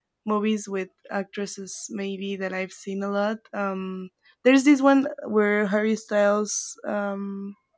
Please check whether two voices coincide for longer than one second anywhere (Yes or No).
No